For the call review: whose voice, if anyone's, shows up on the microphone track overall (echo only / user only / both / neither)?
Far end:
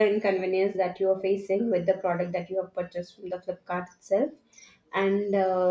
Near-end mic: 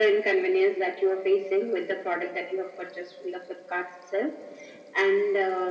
echo only